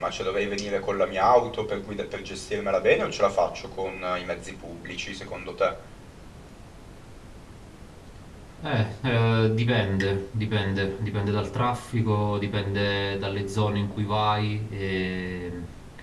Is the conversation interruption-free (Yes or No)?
Yes